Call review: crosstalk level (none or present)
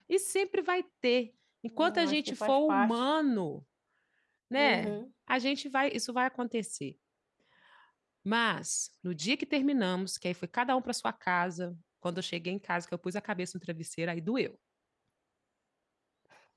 present